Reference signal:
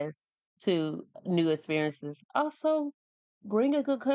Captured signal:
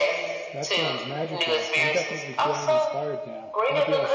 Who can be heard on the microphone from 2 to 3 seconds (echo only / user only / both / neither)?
both